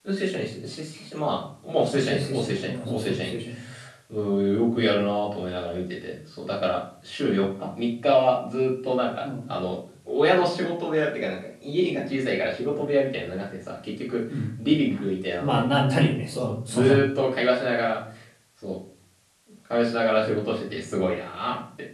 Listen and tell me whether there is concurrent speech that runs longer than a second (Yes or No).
Yes